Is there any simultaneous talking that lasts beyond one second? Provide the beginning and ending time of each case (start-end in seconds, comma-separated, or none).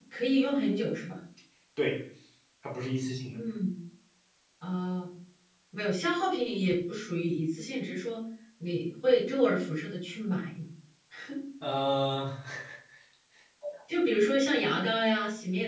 none